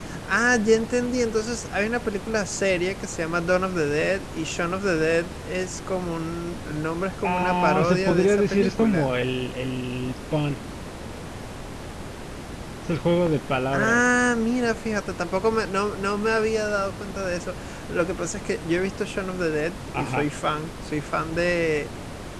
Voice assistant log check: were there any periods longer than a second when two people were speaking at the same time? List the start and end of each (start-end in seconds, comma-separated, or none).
7.2-9.1